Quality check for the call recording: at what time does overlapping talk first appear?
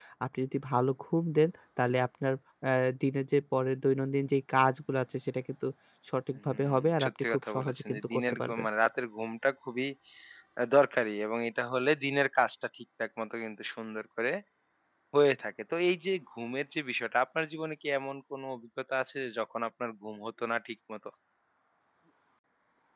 6.5 s

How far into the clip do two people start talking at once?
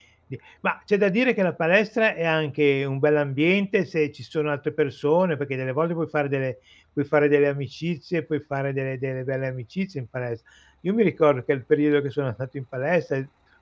none

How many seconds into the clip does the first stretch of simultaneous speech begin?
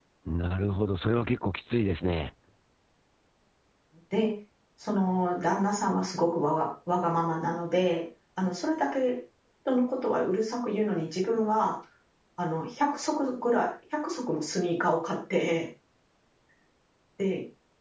none

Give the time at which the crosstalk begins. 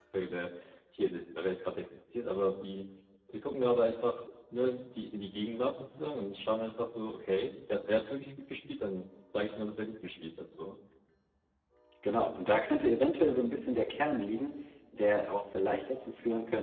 none

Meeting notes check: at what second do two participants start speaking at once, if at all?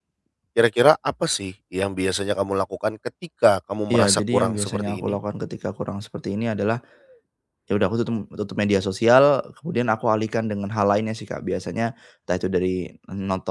3.9 s

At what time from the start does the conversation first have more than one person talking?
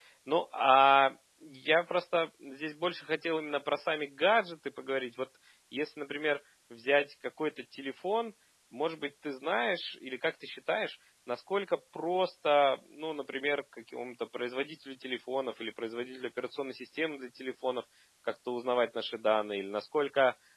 none

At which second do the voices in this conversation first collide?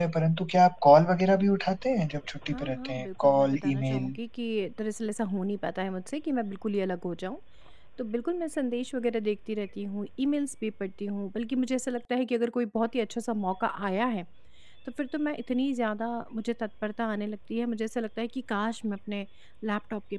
2.5 s

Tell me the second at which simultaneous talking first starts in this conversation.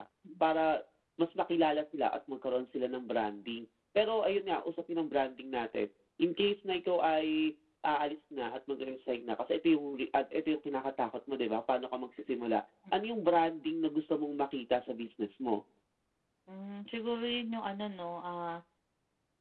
none

